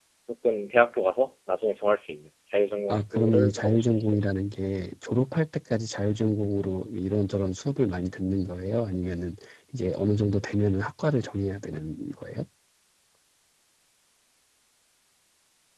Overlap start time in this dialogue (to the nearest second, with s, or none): 3 s